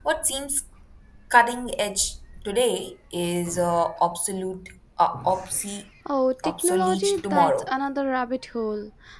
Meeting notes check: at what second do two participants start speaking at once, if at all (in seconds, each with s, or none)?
6.4 s